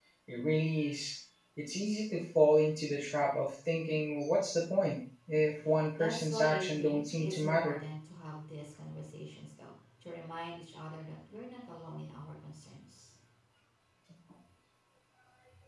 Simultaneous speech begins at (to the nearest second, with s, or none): 6 s